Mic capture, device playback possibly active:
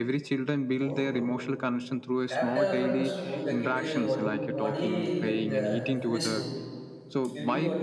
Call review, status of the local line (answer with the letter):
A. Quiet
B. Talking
B